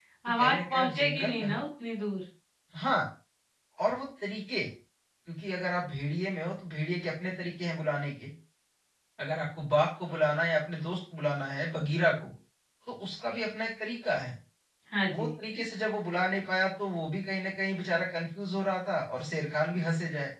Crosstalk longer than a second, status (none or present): present